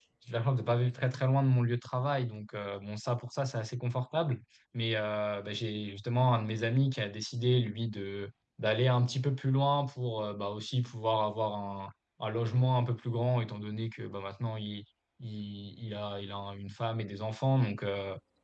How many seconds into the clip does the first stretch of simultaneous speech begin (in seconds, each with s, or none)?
none